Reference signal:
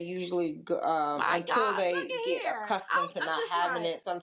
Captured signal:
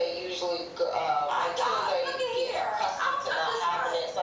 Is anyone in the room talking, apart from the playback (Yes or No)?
No